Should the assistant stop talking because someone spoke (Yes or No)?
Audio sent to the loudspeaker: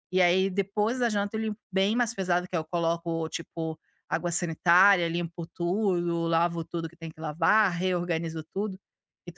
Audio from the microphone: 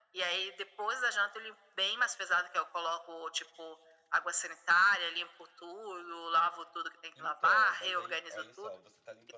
Yes